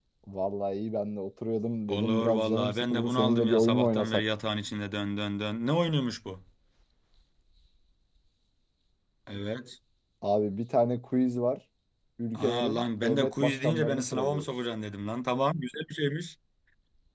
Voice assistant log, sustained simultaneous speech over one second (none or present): present